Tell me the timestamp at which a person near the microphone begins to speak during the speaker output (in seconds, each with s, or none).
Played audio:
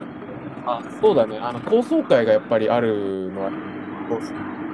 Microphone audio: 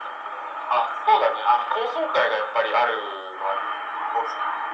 none